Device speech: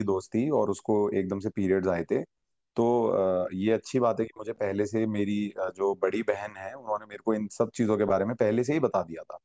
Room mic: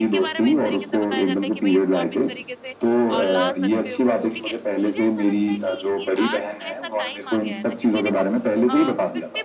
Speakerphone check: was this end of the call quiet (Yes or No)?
No